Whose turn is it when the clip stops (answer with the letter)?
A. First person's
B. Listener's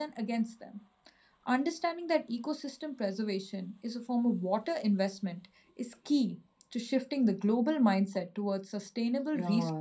B